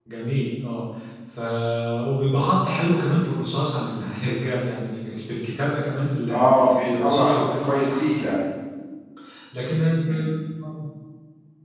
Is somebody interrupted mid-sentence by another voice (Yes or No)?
Yes